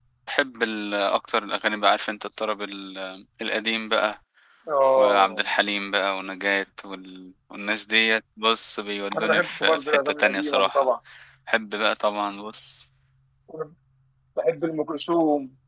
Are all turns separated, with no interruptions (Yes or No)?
No